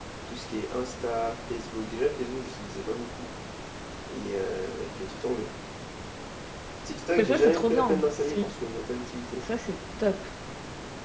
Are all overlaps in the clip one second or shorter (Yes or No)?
No